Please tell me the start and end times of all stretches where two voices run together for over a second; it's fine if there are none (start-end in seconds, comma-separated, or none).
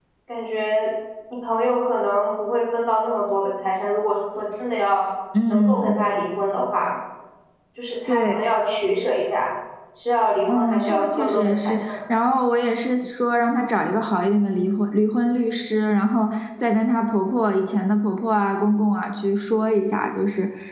10.5-12.0